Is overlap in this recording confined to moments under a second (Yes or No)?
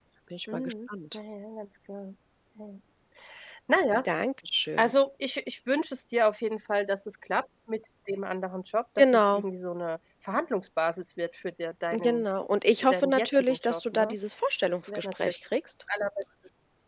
No